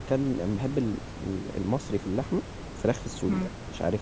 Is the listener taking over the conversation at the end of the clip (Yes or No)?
Yes